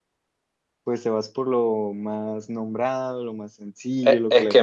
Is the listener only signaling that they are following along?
No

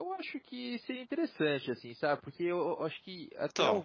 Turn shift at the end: No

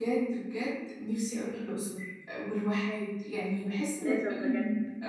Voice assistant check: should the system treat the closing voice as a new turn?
No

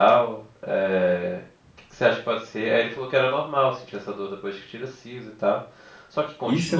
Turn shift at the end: Yes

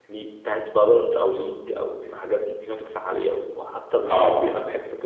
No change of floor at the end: Yes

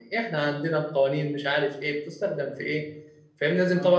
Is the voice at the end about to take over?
No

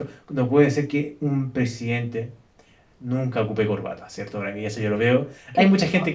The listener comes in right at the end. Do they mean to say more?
No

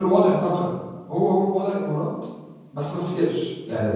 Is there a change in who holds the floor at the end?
Yes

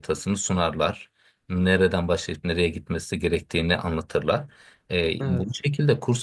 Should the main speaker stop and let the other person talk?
No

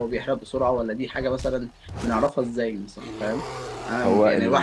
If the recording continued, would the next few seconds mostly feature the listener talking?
No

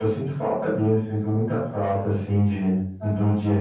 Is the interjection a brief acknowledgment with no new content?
Yes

